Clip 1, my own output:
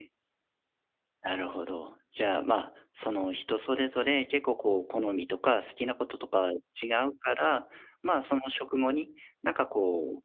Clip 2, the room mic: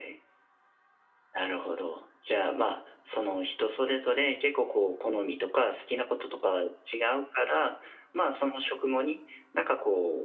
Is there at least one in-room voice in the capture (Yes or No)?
No